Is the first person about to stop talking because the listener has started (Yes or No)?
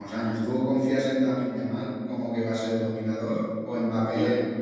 No